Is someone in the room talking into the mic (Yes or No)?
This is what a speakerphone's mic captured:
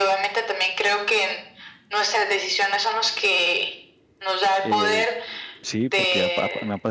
Yes